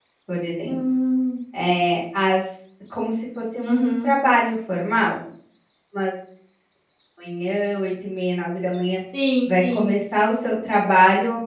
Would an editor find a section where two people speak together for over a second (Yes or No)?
No